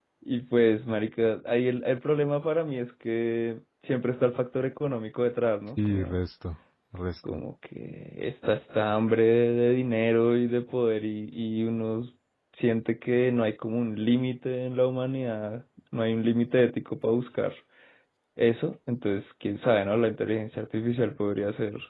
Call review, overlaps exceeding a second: none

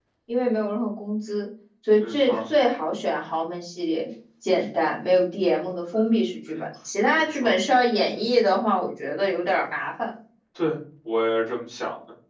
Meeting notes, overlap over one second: none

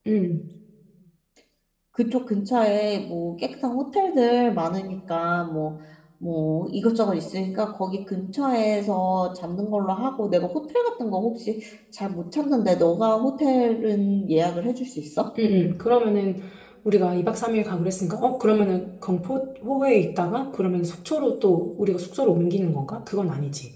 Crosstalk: none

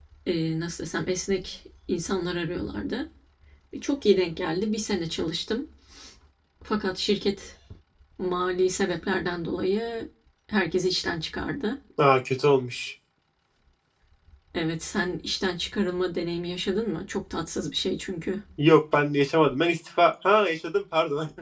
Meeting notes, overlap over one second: none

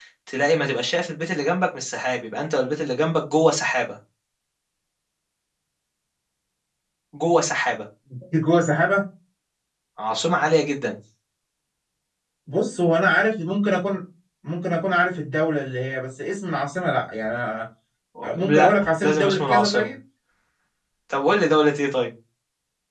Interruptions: present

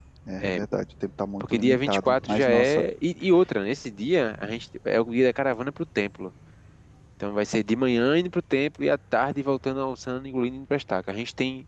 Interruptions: present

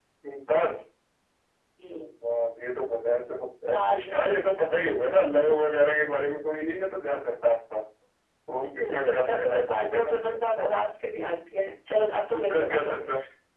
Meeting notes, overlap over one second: present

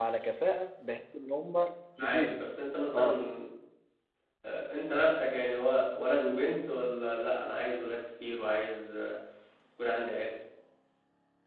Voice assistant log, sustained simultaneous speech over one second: none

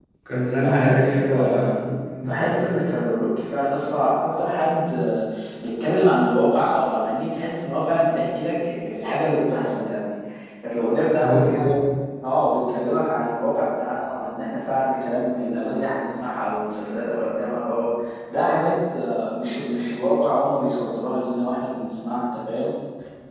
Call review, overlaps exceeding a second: present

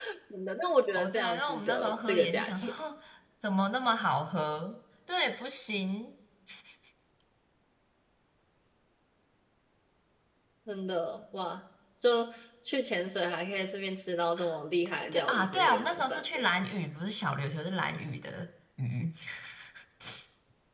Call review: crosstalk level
present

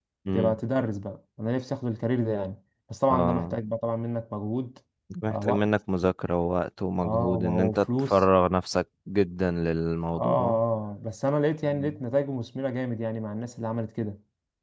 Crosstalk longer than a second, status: present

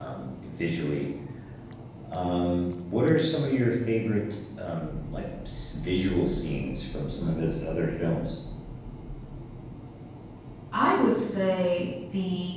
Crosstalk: none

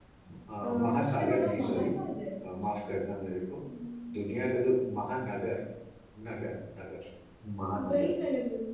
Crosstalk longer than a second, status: present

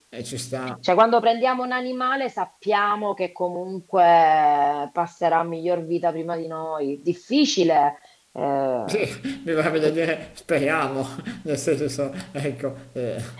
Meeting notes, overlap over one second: none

